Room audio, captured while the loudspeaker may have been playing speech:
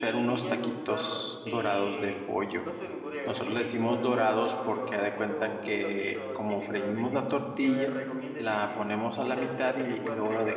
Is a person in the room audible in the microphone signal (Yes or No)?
Yes